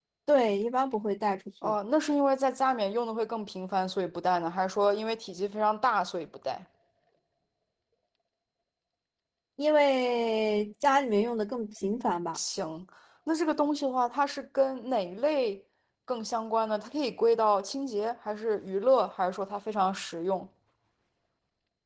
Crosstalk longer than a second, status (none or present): none